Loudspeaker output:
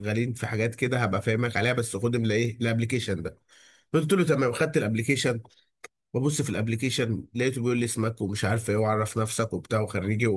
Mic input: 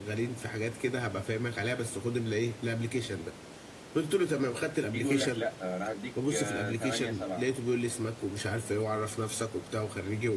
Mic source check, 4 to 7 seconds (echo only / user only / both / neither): both